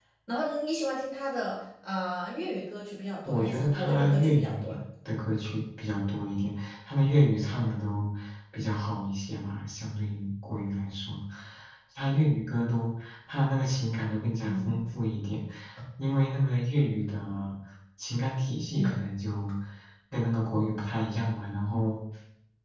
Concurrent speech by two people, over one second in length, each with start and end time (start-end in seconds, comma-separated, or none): 3.2-4.8